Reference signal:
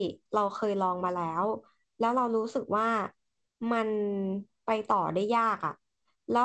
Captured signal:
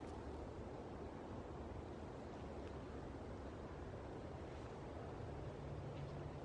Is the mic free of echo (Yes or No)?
Yes